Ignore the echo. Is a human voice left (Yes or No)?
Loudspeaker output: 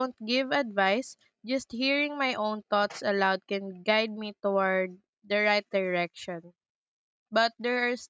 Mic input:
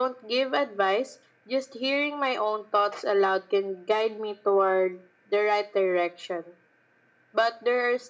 No